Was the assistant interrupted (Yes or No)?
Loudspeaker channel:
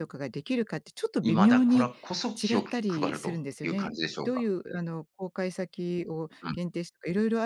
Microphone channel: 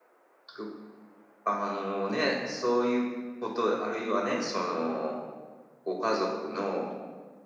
Yes